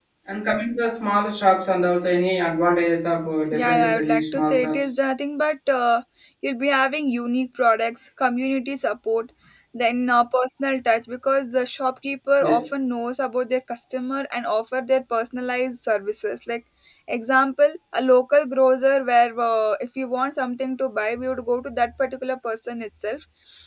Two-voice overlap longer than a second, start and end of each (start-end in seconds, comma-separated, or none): 3.5-5.0